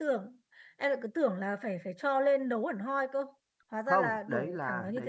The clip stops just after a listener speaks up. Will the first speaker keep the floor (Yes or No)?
No